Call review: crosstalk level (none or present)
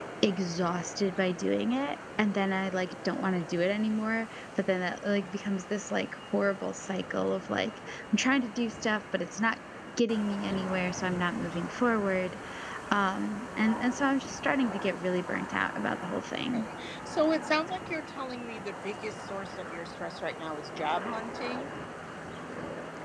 none